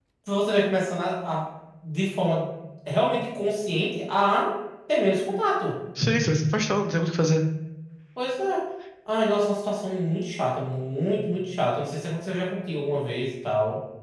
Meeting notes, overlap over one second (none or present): none